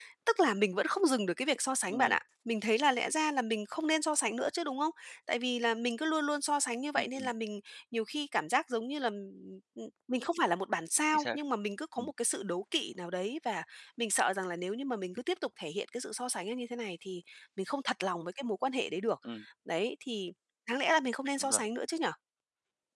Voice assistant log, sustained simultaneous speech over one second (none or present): none